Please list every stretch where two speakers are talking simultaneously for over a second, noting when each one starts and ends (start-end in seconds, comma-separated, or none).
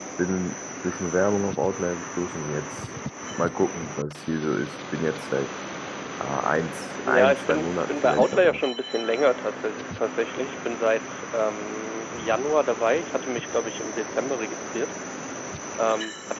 7.0-8.6